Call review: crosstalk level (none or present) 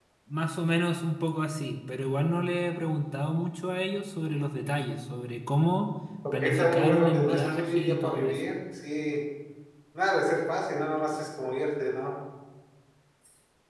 present